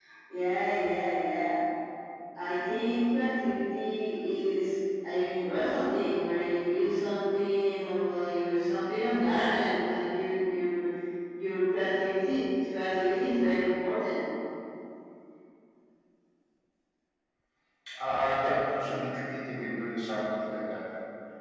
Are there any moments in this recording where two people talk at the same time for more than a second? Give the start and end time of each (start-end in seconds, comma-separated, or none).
none